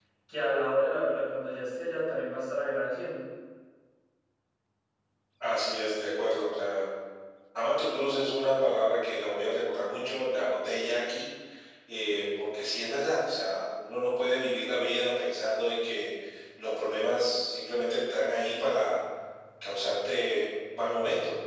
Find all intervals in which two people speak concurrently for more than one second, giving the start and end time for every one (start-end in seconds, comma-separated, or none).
none